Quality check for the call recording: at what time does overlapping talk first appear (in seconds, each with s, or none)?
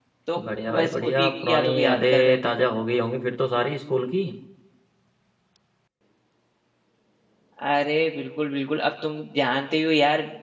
0.8 s